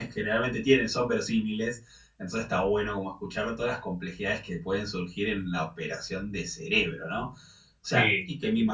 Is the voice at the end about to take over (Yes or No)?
No